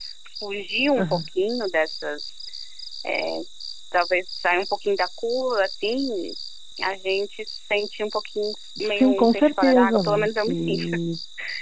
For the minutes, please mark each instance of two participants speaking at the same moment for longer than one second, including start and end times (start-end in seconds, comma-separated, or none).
8.8-10.8